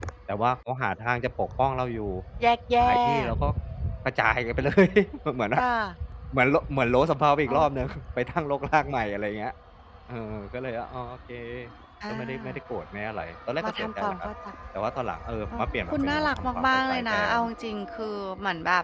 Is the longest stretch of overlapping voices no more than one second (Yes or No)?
No